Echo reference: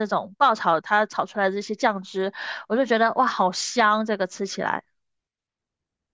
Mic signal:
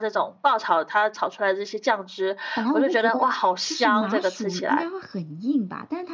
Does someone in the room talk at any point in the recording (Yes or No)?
Yes